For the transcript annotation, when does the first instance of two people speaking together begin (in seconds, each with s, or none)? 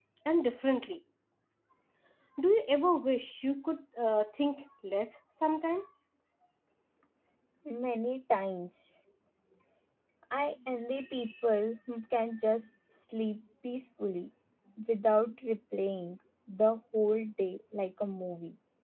none